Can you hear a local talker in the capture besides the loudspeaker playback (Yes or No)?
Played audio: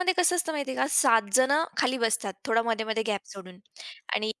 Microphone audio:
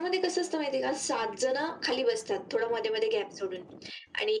No